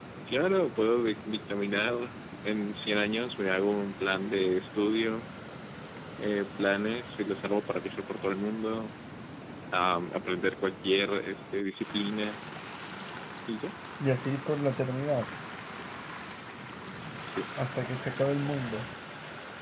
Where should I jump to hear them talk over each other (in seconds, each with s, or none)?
none